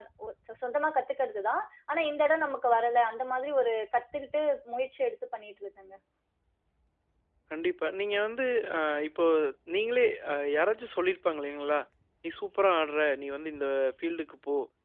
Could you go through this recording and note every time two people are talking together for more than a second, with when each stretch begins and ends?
none

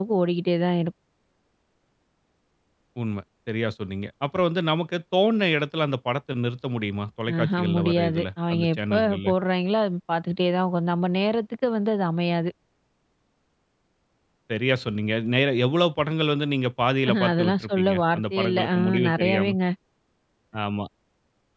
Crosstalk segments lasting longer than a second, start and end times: 7.4-9.3, 17.1-19.5

